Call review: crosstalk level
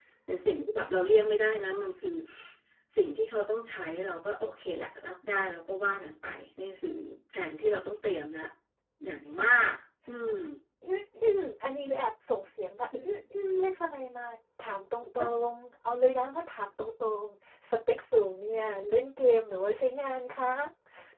none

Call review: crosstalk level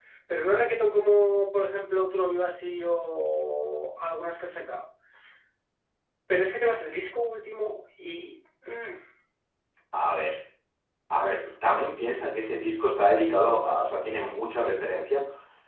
none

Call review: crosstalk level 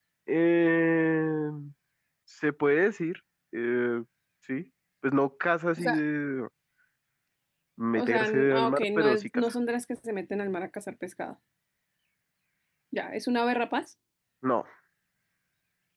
present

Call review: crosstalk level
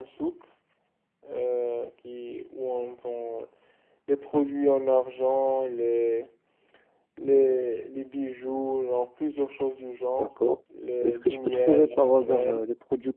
present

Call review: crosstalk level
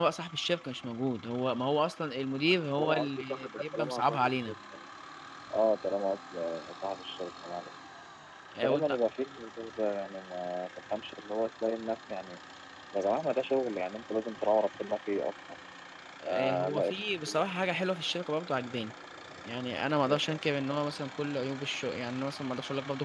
present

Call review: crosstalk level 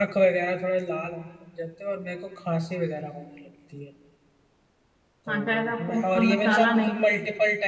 present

